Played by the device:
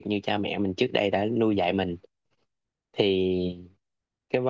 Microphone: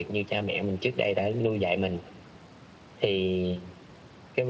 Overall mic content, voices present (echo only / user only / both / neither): echo only